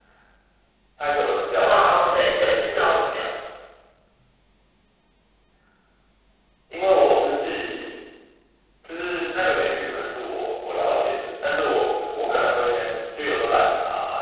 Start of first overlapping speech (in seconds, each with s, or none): 1.7 s